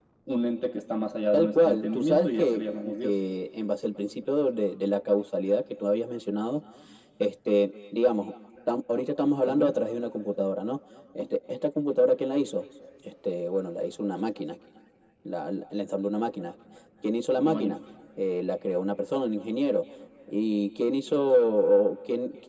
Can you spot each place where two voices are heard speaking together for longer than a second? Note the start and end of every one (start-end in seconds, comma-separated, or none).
1.3-2.6